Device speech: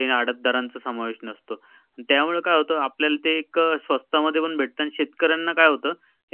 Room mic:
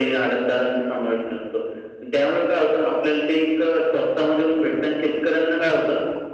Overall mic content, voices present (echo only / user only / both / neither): echo only